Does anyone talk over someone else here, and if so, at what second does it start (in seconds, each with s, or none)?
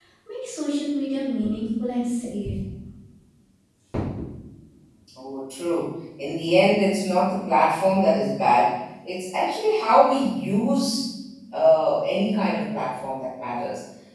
none